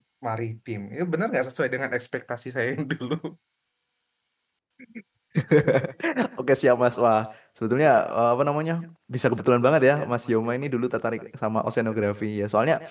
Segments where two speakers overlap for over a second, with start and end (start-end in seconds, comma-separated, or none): none